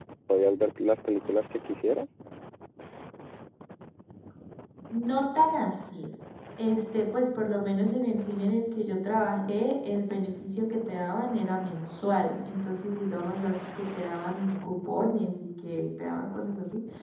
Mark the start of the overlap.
none

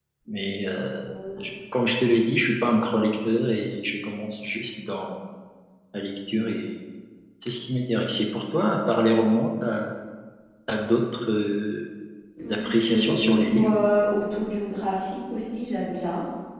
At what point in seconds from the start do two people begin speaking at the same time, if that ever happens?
12.5 s

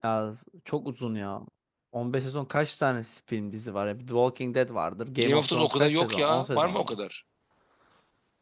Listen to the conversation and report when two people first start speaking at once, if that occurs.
5.2 s

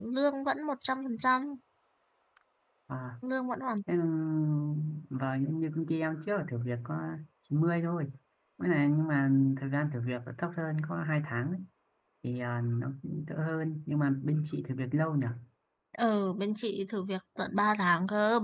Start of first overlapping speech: none

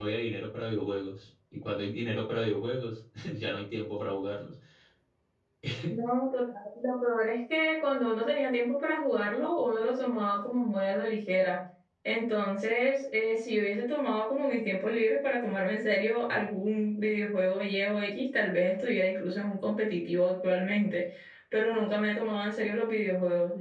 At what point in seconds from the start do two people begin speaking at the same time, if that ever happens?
none

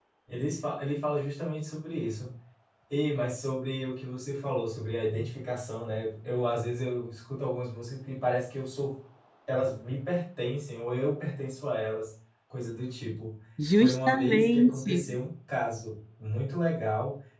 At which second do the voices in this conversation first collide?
13.7 s

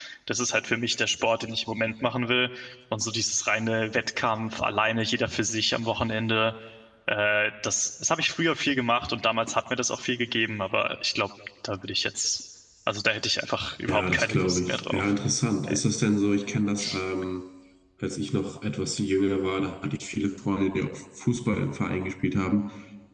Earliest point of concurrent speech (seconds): 13.9 s

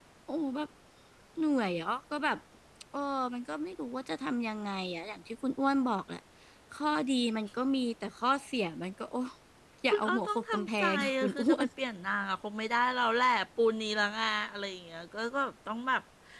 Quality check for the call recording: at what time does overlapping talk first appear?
9.9 s

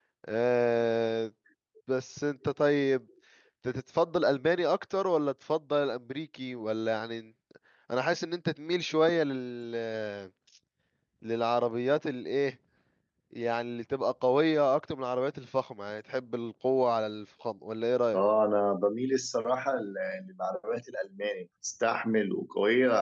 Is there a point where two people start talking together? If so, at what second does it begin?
none

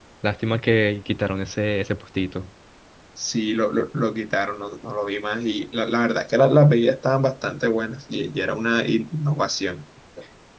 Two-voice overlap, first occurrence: none

